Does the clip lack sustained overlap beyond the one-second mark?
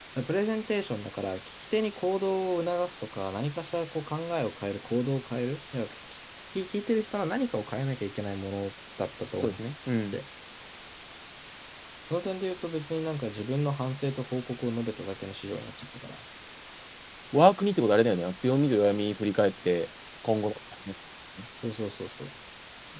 Yes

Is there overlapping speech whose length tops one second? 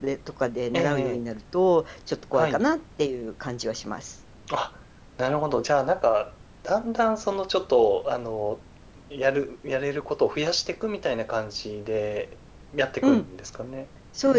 No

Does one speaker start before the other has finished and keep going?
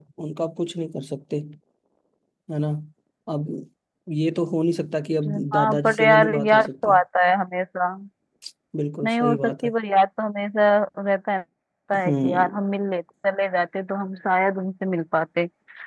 Yes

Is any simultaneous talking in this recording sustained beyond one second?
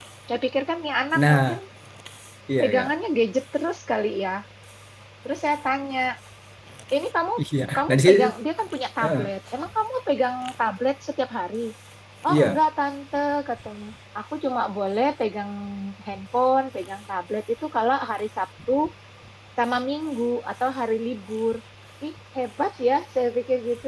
No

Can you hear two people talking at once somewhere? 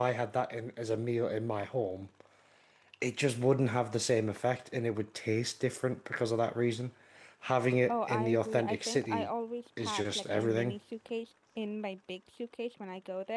Yes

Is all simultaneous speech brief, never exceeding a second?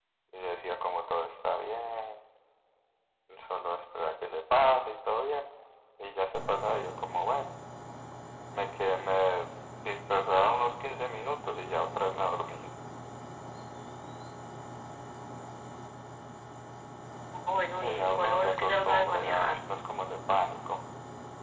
No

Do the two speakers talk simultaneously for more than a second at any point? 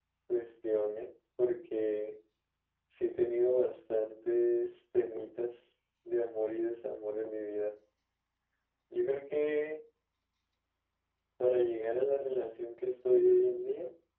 No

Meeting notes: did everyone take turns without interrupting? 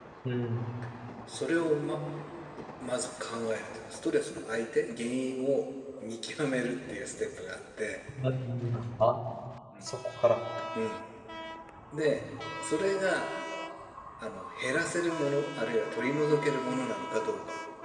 Yes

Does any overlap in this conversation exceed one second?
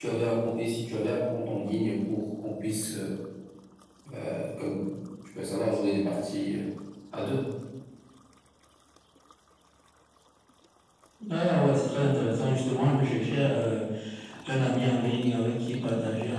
No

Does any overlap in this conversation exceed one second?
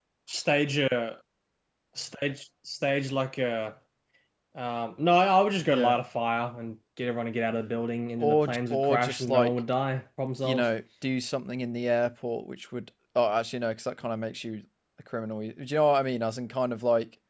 Yes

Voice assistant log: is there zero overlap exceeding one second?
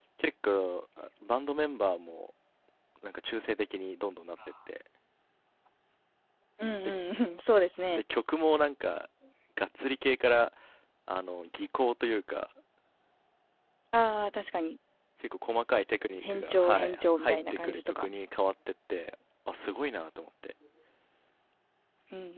No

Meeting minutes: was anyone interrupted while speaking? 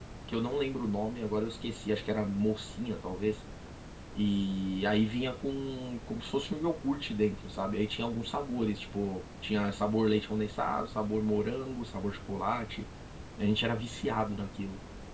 No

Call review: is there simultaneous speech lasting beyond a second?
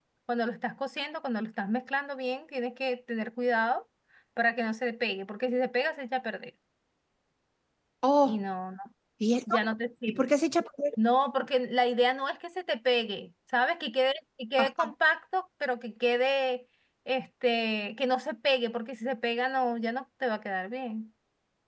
No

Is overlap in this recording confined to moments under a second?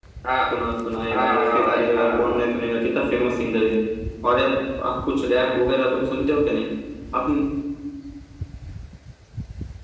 No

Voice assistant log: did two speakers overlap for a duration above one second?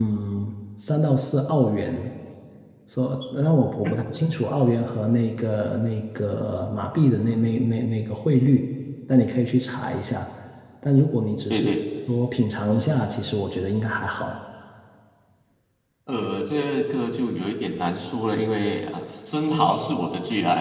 No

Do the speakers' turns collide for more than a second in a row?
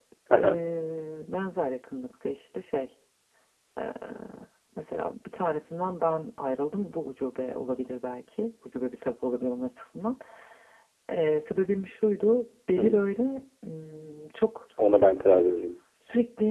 No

